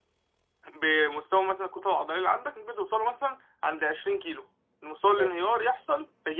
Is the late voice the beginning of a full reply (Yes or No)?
No